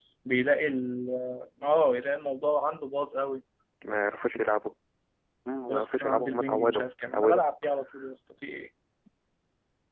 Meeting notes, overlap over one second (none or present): present